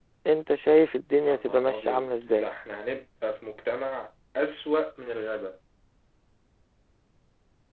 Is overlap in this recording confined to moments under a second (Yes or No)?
No